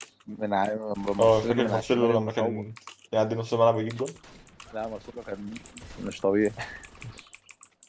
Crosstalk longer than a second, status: present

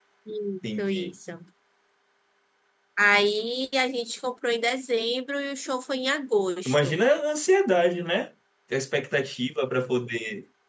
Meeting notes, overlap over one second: none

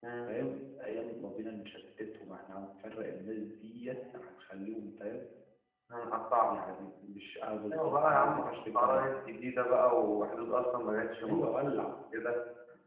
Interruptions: present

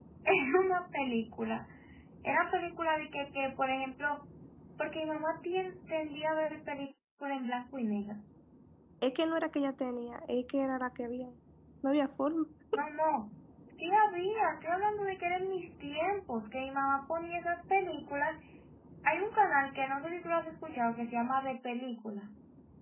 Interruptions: none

